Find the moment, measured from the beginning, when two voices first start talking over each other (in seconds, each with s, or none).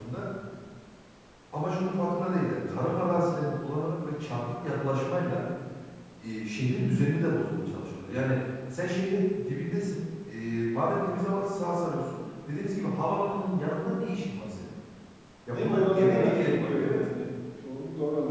15.5 s